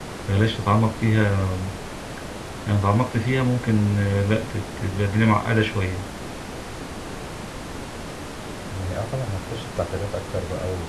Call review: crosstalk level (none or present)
none